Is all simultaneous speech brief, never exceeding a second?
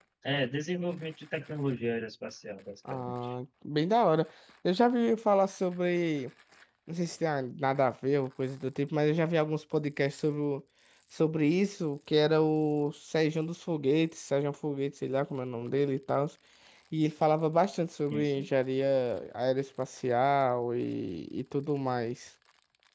Yes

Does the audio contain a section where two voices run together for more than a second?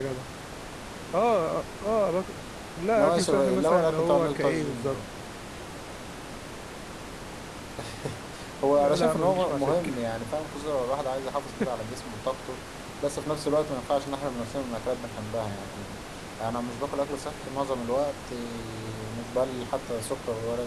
Yes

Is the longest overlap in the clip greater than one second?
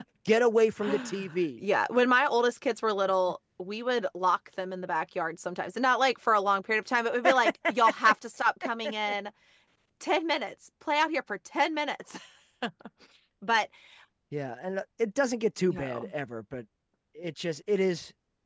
No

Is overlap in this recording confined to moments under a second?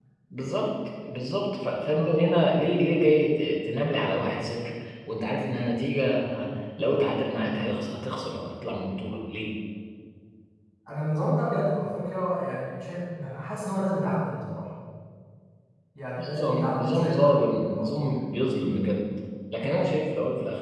No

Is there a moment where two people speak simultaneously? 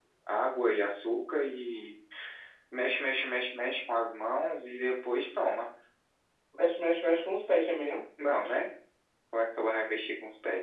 No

